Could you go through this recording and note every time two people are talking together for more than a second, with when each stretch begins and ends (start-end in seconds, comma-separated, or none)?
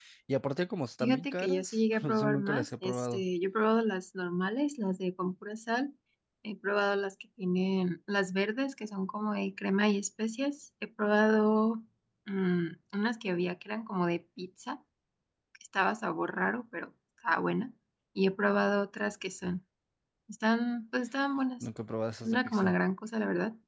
1.0-3.2